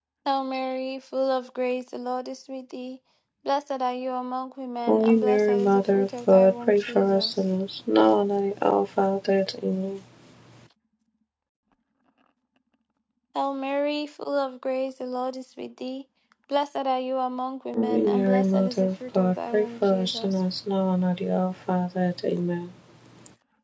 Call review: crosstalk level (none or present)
present